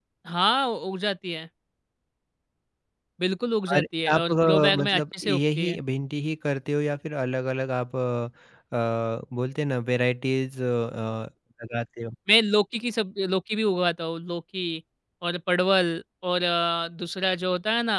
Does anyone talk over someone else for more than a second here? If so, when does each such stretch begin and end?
3.7-5.8

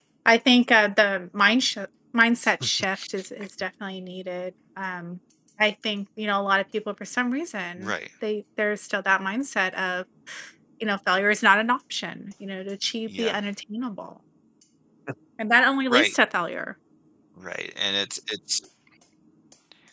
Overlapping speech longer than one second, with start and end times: none

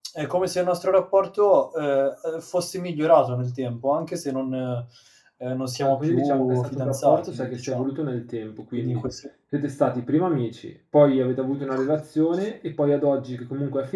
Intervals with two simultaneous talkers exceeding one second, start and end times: 5.8-7.9

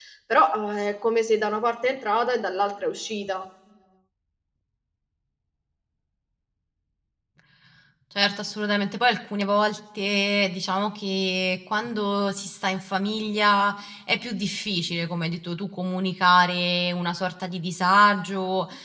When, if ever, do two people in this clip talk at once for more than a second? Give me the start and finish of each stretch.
none

